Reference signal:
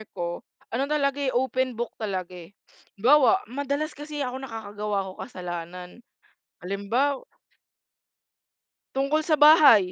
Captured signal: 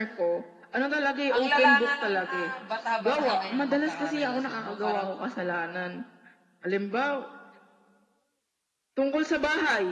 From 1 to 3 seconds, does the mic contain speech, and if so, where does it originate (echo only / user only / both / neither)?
both